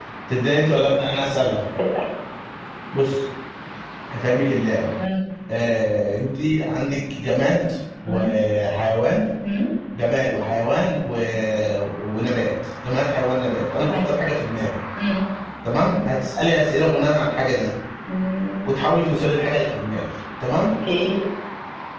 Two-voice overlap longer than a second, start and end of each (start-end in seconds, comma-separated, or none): none